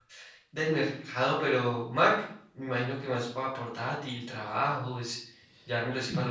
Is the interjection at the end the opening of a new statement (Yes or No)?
No